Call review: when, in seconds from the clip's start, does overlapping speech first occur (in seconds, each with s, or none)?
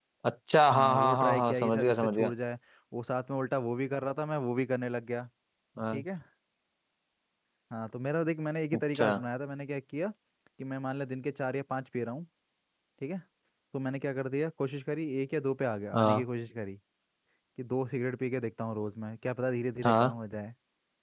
0.7 s